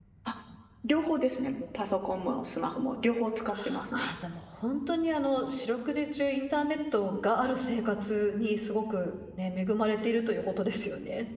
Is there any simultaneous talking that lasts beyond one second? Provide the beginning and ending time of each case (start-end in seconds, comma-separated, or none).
none